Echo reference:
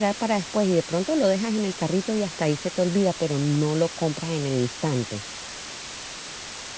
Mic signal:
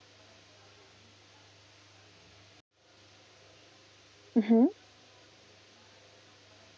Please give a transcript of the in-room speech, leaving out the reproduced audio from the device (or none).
Ujú.